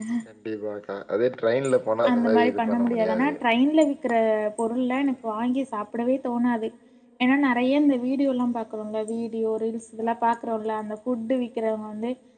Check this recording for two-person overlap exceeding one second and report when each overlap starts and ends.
2.1-3.3

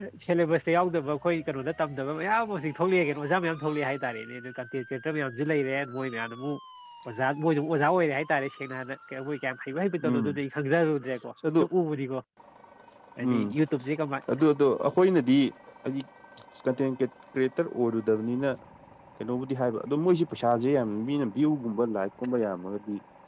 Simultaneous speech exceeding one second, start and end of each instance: none

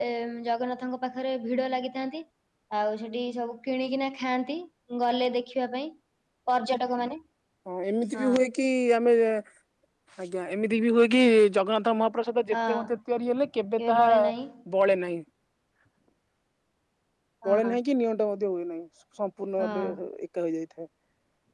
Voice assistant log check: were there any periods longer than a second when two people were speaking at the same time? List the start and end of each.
none

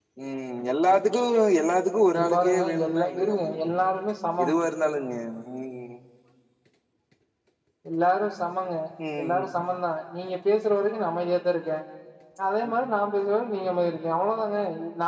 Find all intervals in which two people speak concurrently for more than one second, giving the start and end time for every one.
2.1-3.9

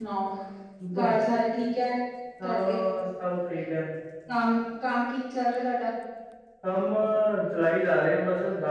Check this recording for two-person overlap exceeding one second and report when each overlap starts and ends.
none

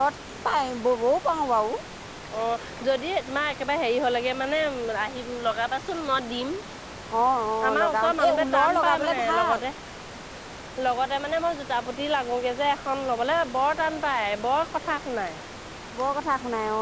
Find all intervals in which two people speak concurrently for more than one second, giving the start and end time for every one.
7.7-9.6

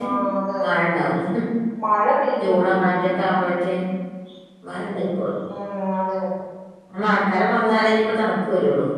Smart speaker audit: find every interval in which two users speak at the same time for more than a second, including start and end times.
none

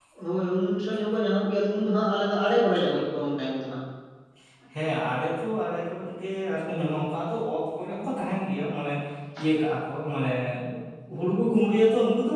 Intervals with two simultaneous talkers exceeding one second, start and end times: none

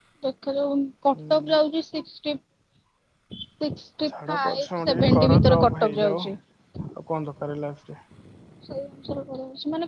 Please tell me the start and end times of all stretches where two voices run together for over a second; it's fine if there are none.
4.3-6.2

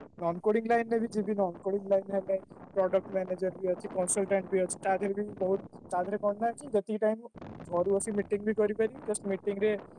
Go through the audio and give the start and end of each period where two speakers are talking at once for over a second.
none

